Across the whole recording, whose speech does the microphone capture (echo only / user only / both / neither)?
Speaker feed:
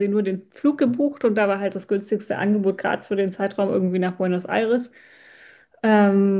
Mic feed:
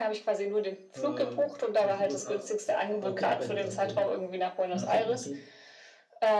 both